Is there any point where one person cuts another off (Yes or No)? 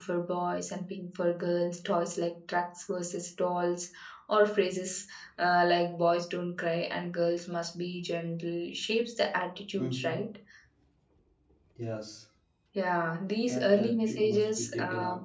Yes